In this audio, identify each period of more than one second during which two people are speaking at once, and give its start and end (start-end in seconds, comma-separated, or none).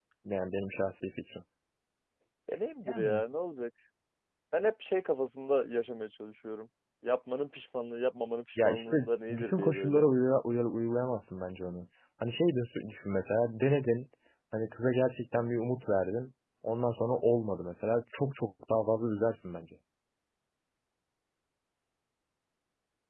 8.6-10.1